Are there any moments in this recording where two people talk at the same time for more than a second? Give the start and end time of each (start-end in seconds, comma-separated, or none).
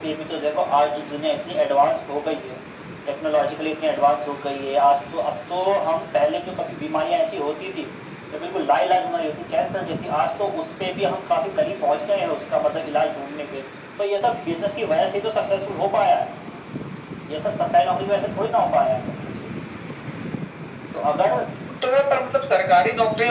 none